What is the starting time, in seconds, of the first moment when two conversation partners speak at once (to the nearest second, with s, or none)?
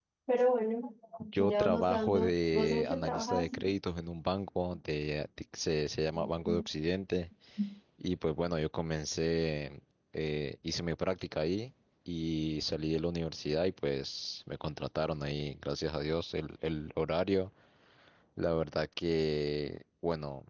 1 s